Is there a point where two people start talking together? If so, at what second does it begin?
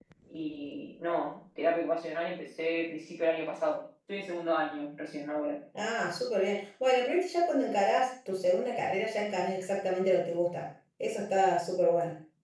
none

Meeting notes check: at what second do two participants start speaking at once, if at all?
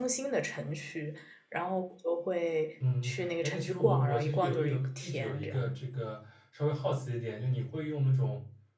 2.8 s

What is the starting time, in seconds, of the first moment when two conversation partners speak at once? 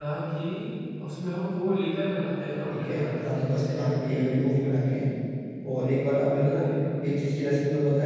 2.7 s

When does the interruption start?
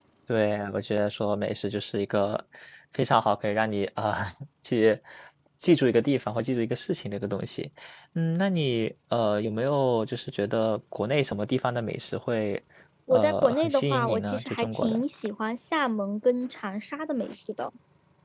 13.1 s

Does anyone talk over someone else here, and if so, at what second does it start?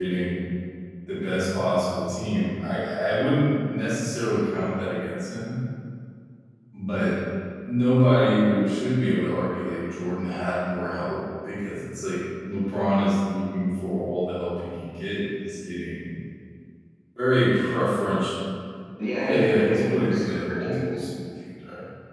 19.2 s

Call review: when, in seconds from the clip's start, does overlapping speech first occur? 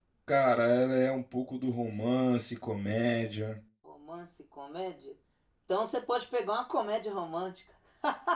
none

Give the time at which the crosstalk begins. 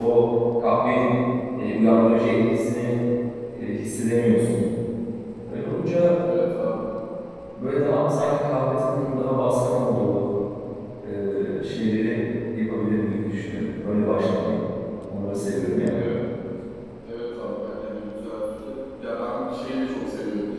none

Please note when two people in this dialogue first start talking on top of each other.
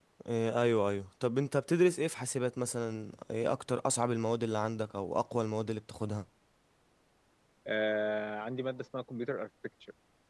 none

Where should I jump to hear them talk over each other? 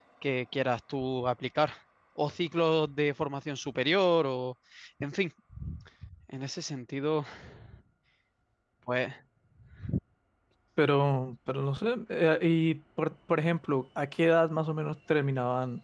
none

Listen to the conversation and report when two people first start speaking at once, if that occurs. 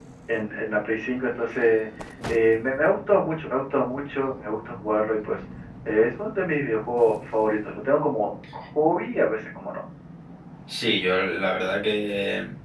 none

